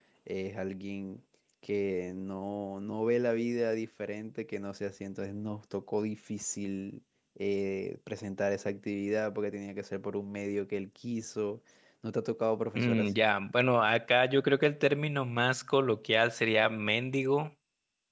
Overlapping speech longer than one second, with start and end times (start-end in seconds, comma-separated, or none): none